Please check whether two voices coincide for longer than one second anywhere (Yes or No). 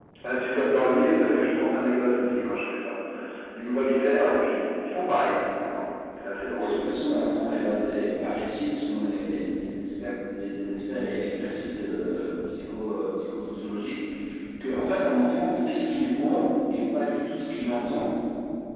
No